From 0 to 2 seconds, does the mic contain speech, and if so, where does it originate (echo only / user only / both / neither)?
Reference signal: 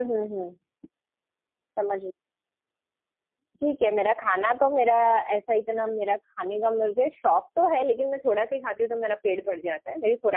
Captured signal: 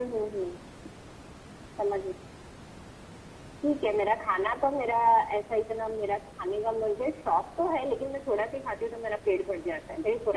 echo only